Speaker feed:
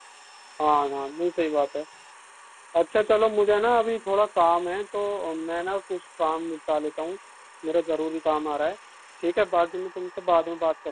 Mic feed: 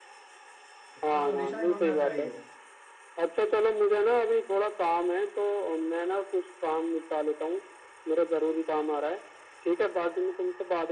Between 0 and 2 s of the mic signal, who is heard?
both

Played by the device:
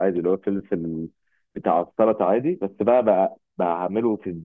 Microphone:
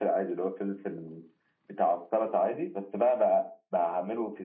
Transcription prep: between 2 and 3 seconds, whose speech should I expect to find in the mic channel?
echo only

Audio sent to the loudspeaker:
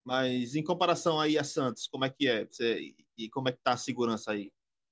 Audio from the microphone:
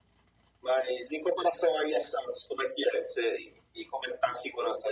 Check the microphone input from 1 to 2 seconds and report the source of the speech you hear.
echo only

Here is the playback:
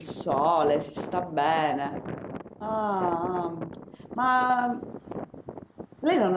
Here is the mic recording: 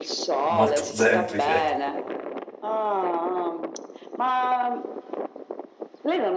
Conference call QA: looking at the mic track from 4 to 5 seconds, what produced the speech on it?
echo only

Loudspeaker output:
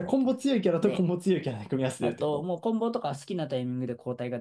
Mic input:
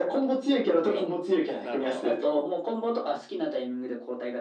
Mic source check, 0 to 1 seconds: echo only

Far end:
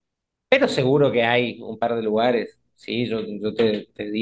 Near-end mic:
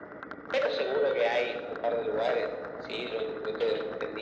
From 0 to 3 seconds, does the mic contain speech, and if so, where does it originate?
echo only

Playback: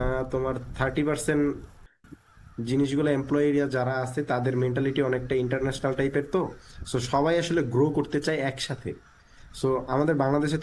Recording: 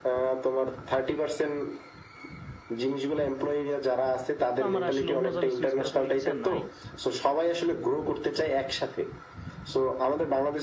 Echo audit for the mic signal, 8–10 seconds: echo only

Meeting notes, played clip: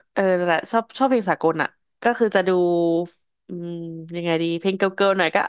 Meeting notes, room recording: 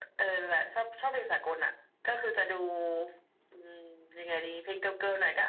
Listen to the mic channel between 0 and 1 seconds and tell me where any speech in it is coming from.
echo only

